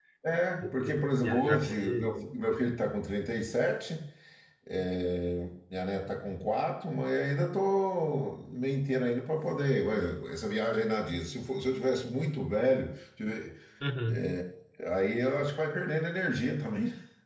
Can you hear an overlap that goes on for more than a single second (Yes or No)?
Yes